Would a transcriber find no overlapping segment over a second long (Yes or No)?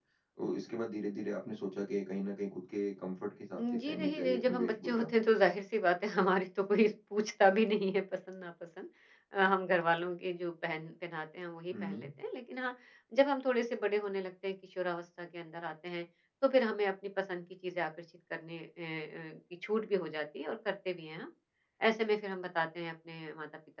No